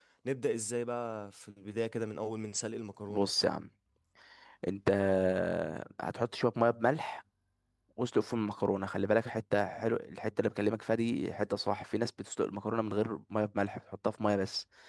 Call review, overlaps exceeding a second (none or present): none